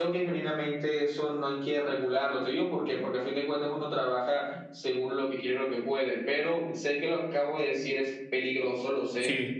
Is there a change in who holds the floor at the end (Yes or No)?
No